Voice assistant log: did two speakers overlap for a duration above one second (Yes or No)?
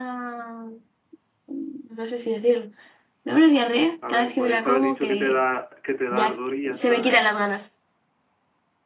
Yes